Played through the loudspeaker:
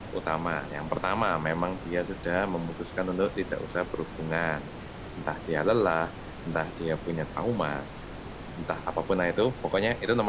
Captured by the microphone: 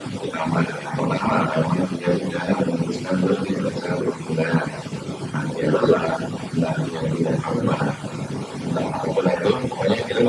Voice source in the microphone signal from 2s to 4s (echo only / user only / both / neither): echo only